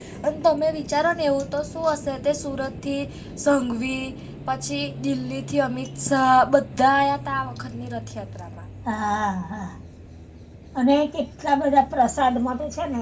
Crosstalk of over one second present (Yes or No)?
No